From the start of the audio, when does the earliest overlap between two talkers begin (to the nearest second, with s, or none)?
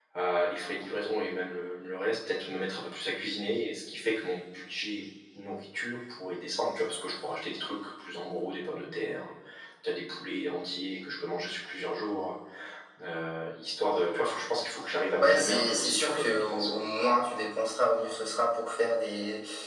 15 s